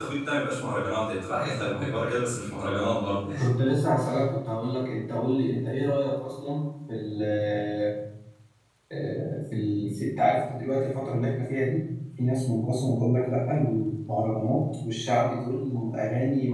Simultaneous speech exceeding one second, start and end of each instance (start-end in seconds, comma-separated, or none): none